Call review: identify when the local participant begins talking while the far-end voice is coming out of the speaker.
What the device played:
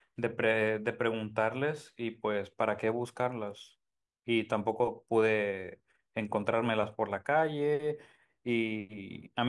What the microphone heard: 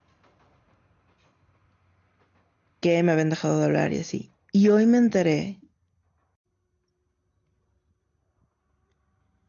2.8 s

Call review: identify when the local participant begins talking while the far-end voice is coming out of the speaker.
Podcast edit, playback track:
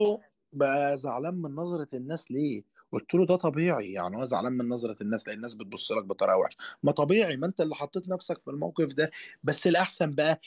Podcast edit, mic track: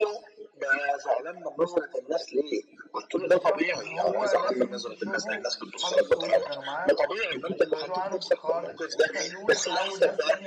3.2 s

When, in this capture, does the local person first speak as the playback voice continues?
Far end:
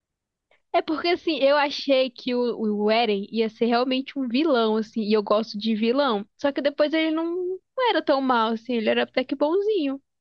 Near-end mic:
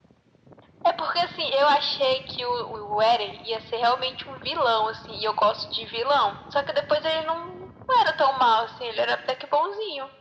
none

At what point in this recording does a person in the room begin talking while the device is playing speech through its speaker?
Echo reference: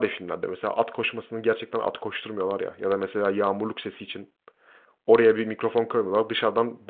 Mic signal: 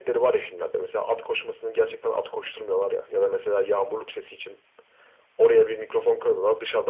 none

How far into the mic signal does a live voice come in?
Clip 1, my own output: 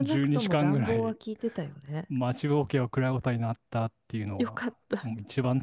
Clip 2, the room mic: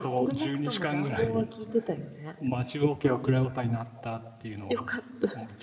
none

